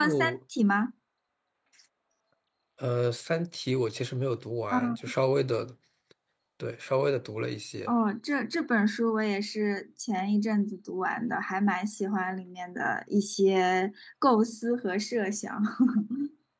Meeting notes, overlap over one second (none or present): none